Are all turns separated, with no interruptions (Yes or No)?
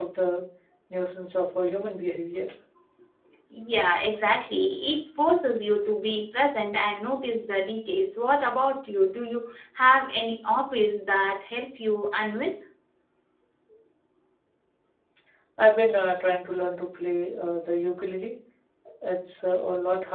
Yes